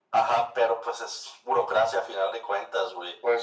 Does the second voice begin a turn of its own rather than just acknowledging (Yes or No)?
No